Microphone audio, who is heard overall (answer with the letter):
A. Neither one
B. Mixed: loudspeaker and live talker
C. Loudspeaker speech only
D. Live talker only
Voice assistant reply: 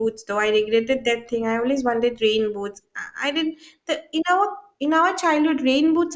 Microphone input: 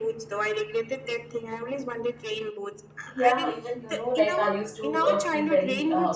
B